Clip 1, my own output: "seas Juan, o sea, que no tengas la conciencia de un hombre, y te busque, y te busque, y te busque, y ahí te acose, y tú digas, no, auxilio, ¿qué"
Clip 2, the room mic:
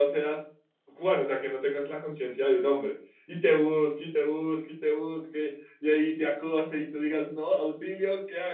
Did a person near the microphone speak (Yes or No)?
No